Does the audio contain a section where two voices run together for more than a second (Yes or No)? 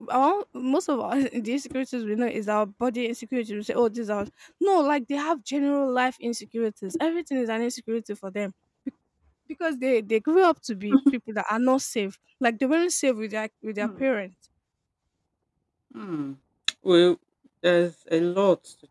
No